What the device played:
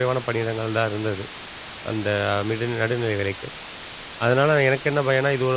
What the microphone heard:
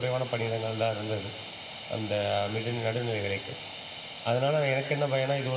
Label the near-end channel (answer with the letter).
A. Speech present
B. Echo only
B